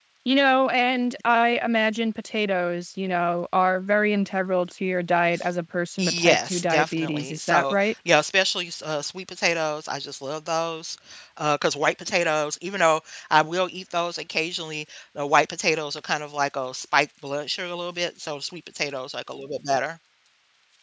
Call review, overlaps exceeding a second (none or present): present